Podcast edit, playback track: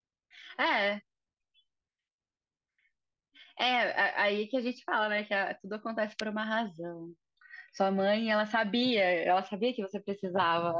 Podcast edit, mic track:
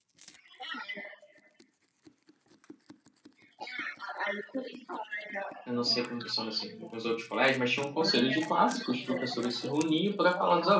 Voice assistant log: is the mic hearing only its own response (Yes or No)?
No